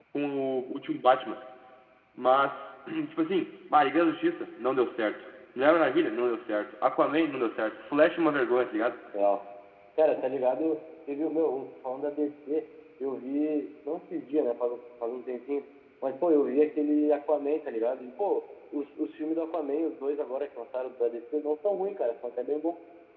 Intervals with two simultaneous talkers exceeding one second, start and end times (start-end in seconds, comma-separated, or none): none